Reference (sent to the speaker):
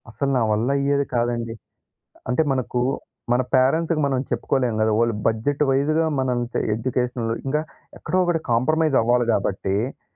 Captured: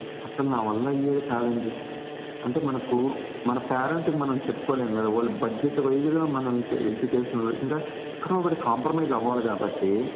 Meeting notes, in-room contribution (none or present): none